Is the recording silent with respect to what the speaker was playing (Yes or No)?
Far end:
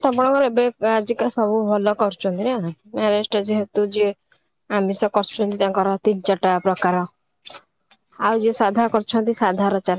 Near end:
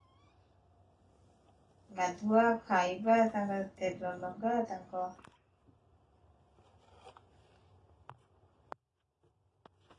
Yes